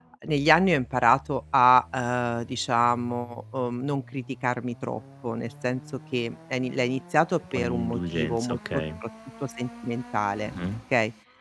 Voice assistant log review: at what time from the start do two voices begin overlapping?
7.5 s

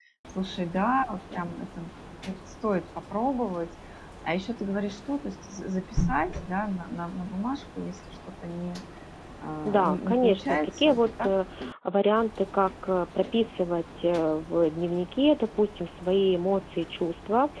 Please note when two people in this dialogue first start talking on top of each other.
9.7 s

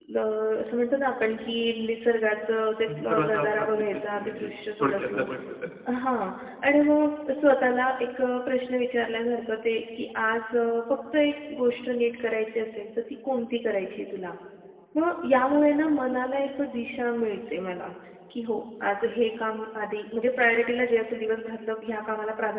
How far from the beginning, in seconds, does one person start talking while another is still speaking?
2.9 s

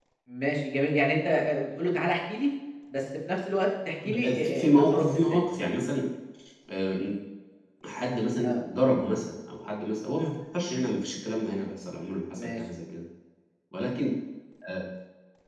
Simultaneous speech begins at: 4.0 s

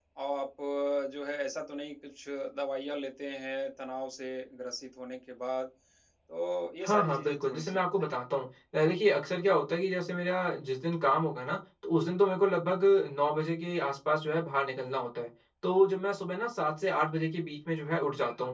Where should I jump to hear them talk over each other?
6.8 s

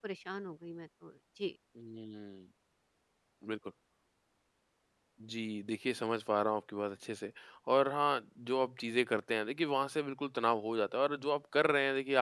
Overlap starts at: none

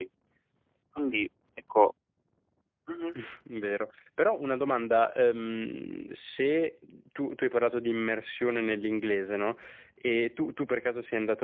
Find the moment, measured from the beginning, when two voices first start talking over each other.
none

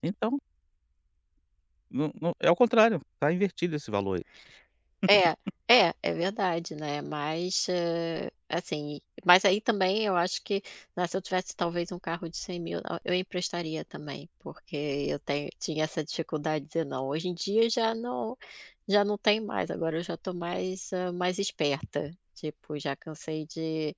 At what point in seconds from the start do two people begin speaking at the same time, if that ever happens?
none

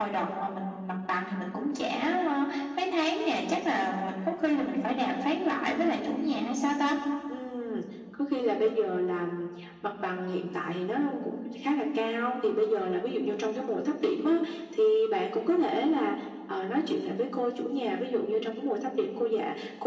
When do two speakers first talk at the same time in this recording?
none

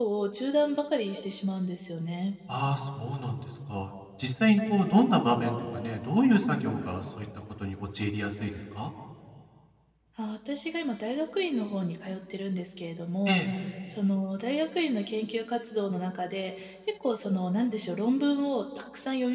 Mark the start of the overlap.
none

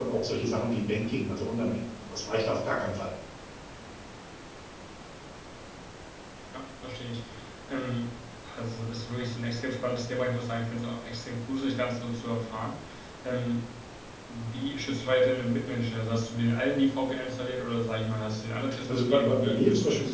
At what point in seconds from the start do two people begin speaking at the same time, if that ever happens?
18.9 s

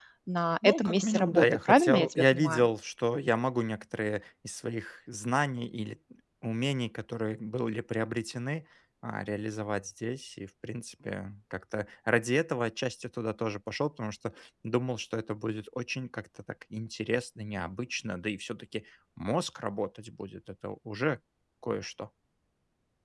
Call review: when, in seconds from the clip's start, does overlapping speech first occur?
0.6 s

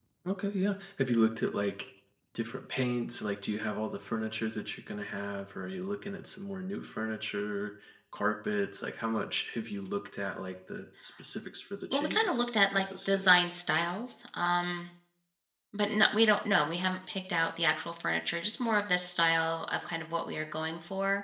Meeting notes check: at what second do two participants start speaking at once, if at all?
11.9 s

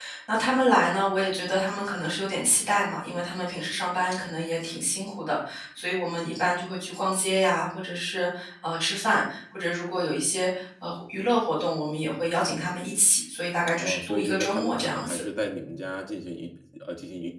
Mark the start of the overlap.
13.8 s

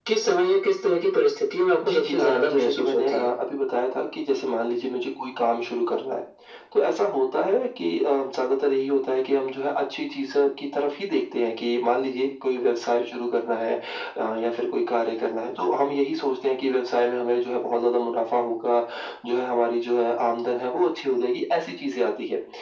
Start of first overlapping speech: 1.8 s

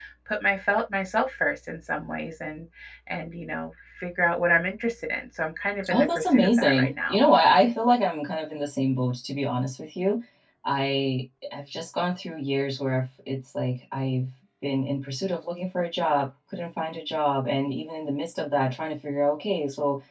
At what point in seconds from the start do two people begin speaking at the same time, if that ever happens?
5.8 s

